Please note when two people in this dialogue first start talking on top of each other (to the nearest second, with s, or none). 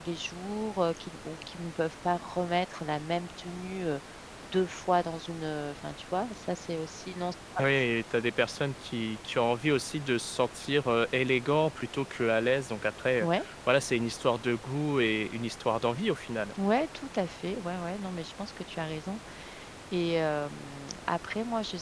none